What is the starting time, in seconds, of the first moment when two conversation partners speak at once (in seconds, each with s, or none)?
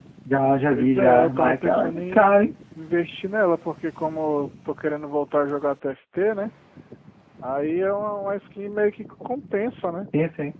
0.7 s